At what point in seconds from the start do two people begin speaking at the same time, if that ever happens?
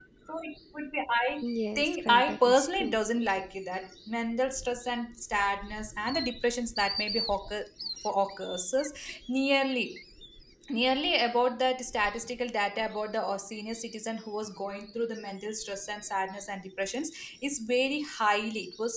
1.8 s

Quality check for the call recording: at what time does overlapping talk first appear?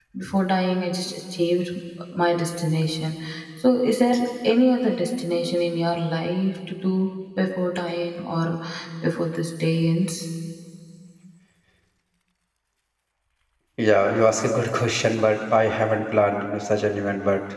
none

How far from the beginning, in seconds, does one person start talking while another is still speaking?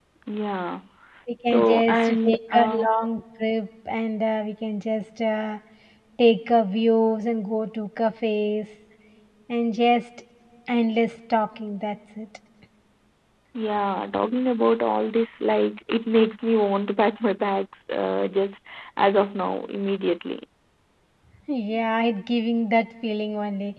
1.4 s

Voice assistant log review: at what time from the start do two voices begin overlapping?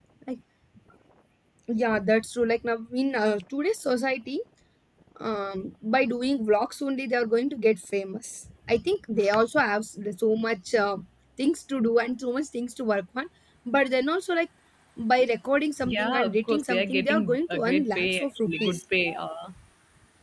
15.8 s

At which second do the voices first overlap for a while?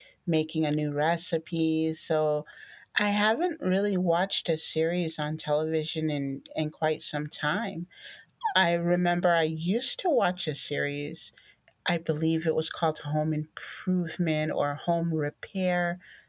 none

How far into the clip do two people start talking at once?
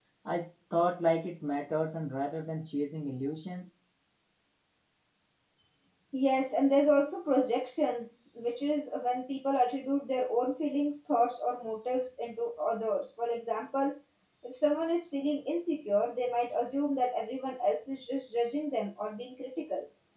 none

